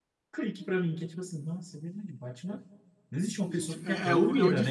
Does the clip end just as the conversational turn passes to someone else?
Yes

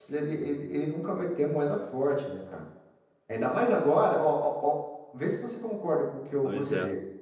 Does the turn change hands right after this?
No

